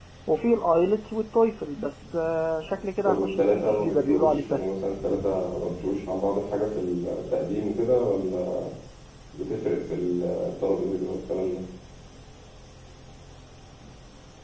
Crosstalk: present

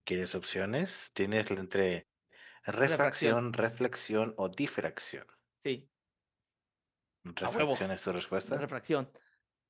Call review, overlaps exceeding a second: none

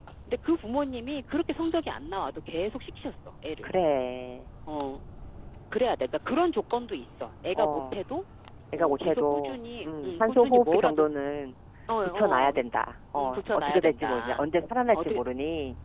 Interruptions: present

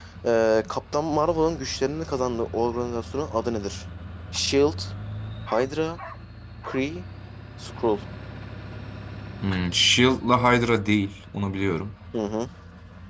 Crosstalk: none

